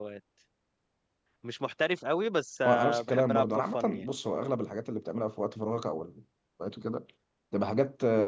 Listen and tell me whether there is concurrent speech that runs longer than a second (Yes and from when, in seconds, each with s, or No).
Yes, from 2.6 s